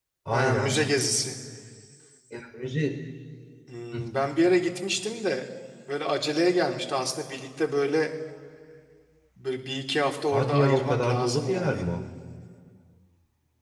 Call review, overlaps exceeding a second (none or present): present